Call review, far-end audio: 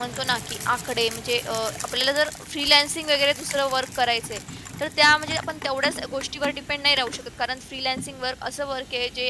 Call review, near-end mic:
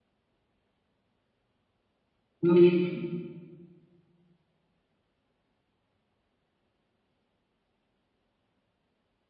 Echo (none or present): none